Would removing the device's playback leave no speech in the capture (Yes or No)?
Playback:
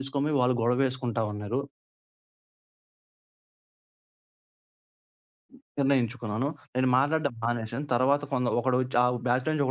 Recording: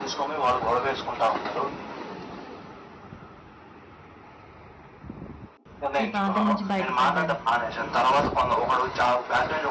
No